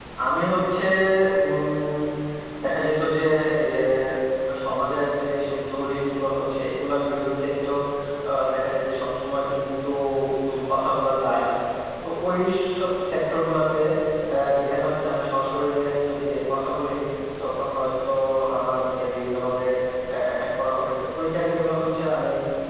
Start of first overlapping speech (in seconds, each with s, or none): none